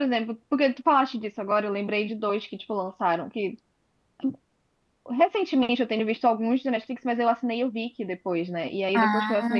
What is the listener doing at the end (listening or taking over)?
listening